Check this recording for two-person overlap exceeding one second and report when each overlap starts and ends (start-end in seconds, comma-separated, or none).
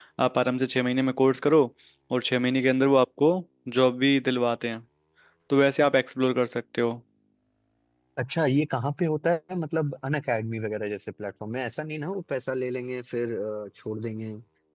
none